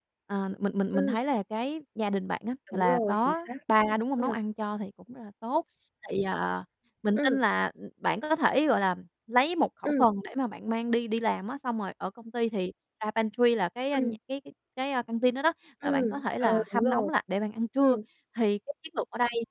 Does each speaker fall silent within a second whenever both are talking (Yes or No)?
No